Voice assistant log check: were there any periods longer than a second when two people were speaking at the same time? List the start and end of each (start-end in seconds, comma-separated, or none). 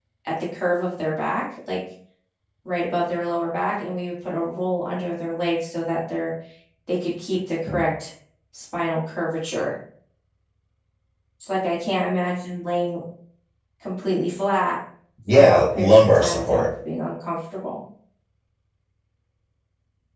15.3-16.6